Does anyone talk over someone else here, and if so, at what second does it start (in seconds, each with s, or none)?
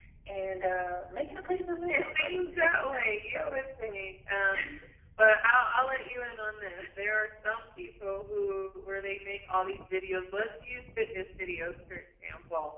1.9 s